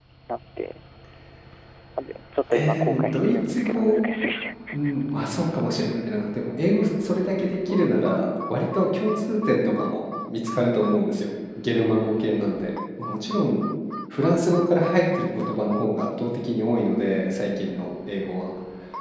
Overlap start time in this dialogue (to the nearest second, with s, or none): 3 s